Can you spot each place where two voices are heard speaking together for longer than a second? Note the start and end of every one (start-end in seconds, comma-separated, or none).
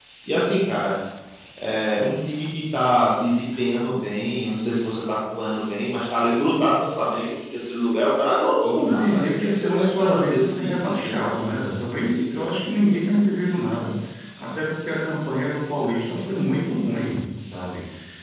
8.4-11.3